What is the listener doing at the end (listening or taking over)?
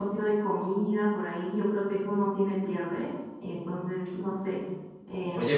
taking over